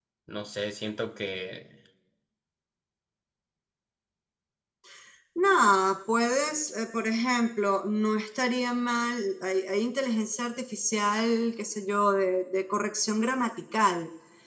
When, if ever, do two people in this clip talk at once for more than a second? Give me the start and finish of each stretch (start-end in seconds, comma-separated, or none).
none